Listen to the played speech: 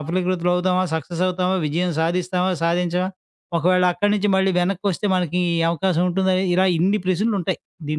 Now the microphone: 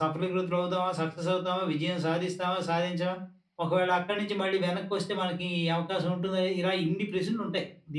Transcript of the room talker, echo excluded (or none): none